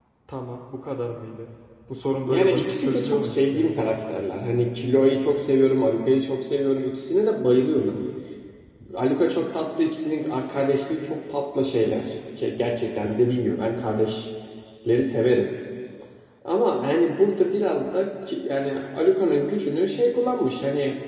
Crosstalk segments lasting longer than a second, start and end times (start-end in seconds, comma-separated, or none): 2.3-3.9